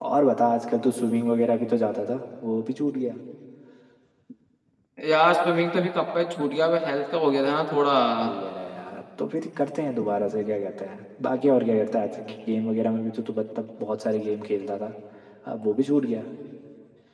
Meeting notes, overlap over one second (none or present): none